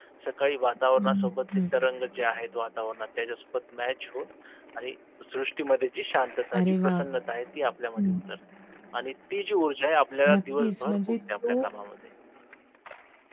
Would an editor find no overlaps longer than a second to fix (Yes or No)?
No